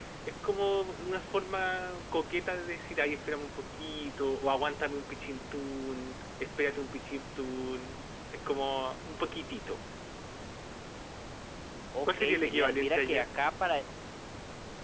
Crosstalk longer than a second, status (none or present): present